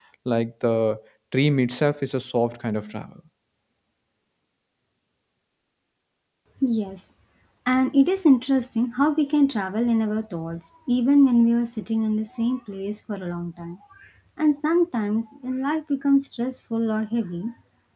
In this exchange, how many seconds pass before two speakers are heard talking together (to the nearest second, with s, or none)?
none